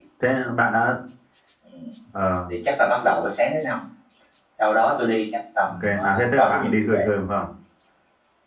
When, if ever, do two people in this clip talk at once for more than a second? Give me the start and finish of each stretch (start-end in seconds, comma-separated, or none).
5.7-7.1